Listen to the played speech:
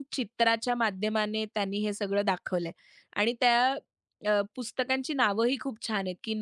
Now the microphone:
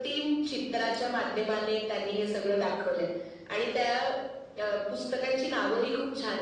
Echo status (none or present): present